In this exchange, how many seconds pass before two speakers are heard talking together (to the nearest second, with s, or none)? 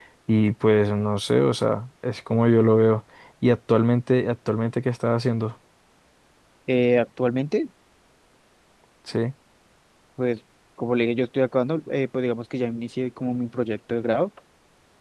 none